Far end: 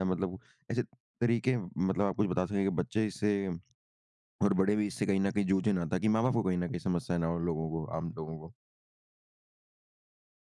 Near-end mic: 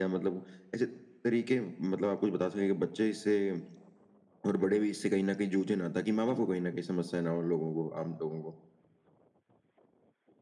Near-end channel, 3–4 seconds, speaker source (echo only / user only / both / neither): echo only